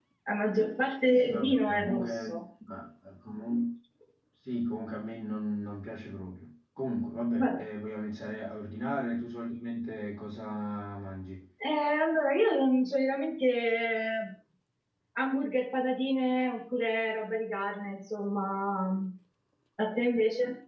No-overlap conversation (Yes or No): No